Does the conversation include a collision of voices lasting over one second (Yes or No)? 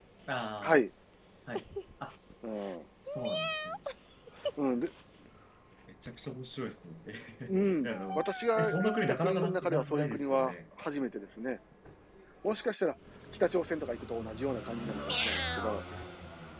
Yes